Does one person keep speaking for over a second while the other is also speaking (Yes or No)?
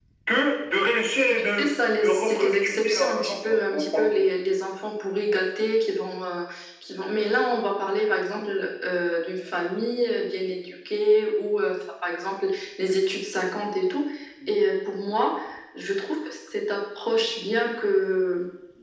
Yes